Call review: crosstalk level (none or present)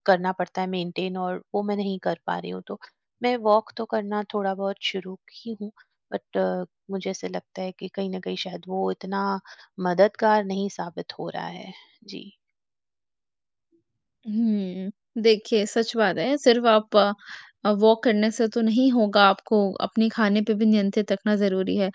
none